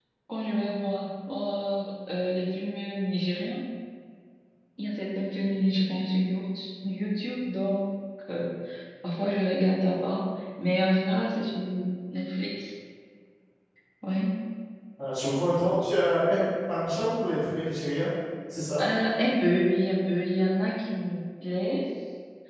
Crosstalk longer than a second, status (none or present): none